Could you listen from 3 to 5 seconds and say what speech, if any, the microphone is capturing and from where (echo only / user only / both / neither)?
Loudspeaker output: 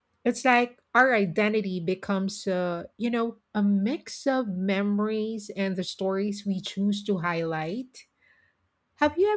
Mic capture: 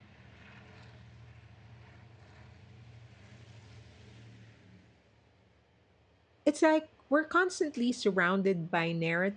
neither